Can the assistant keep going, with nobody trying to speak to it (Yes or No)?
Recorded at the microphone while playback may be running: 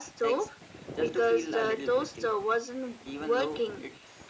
Yes